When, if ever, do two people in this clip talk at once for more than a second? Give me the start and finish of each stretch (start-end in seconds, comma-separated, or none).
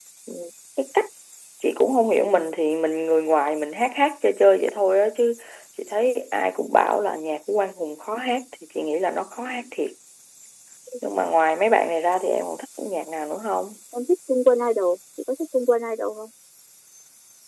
none